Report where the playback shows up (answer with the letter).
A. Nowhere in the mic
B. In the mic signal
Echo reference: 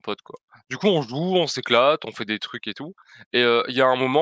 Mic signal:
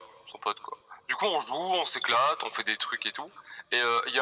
B